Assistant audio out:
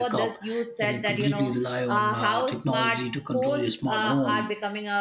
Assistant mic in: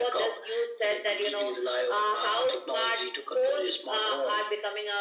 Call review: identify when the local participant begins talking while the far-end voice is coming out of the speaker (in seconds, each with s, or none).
none